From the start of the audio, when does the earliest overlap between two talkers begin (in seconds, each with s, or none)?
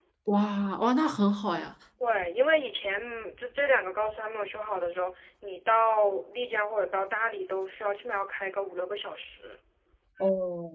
none